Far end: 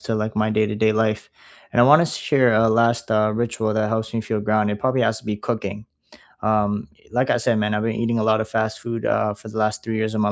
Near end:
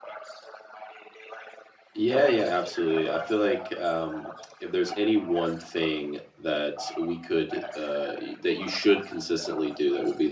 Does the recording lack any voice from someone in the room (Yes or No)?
No